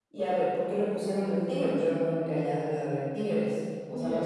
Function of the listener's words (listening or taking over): taking over